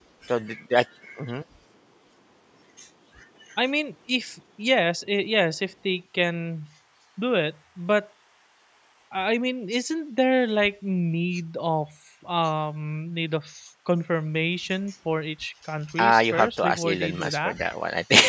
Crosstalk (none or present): present